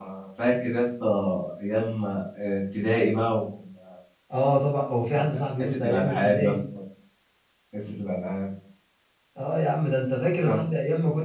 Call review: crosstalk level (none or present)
present